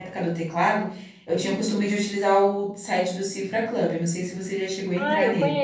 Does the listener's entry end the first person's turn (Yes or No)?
Yes